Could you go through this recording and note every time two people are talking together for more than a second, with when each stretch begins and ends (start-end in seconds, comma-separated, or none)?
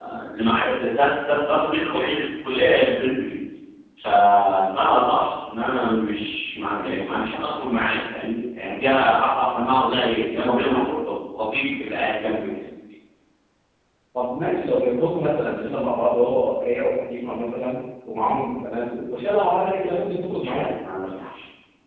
none